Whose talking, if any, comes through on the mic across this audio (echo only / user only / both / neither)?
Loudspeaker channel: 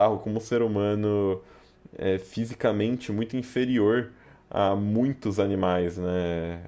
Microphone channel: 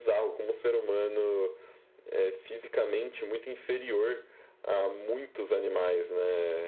echo only